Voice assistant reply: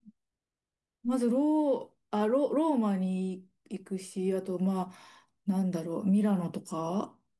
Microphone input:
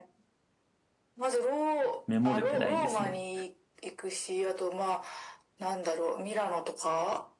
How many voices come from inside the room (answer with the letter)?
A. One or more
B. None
A